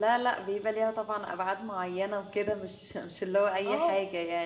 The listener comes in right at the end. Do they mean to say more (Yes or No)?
Yes